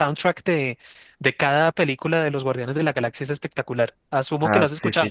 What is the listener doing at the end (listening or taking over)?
taking over